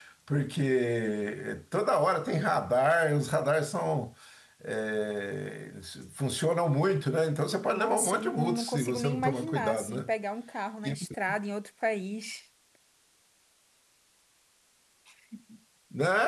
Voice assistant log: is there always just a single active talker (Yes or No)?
No